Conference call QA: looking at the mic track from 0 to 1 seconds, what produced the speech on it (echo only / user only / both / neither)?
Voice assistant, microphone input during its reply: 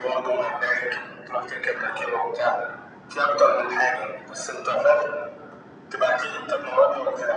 echo only